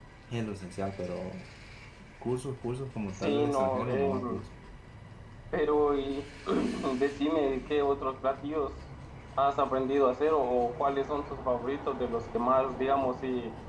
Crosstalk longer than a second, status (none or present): present